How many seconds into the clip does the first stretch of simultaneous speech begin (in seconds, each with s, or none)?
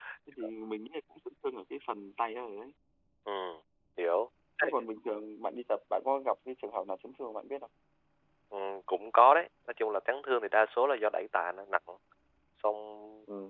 none